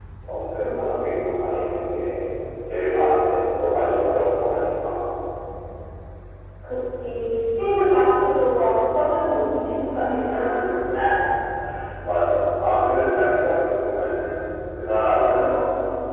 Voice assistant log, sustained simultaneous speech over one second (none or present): none